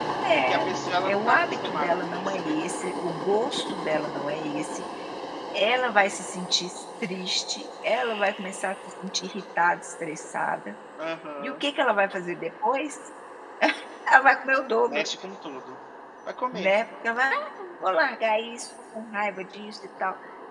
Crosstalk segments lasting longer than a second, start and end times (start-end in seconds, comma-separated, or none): 1.1-2.6